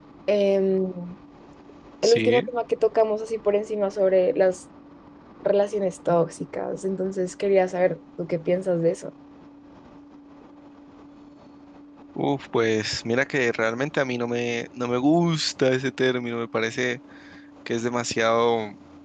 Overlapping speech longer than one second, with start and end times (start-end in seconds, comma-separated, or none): none